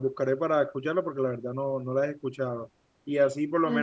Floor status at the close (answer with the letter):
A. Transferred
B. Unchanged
B